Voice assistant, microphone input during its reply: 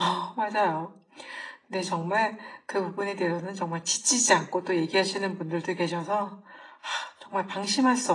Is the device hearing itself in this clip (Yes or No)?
No